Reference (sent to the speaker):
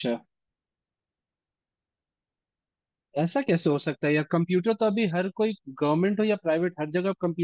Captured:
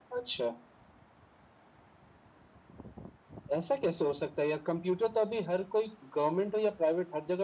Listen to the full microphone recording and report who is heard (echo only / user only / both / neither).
echo only